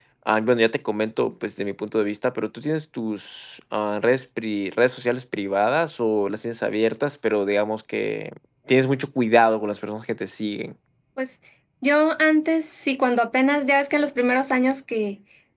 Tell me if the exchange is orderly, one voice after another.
Yes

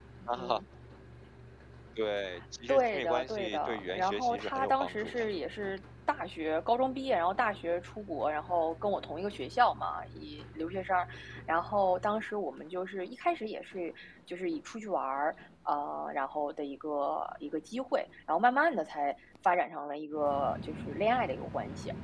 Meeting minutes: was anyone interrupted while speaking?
Yes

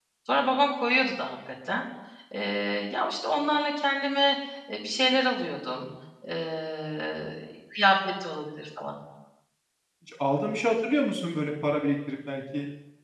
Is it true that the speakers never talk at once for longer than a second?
Yes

